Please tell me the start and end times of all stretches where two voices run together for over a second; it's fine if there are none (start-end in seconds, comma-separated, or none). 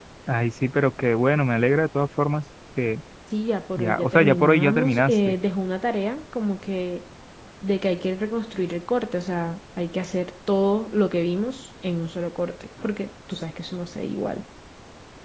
3.8-5.3